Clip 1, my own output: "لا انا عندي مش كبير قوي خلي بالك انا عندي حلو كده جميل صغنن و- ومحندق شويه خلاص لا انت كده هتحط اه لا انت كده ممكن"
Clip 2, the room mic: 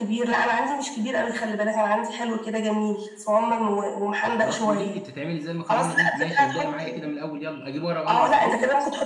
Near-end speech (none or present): present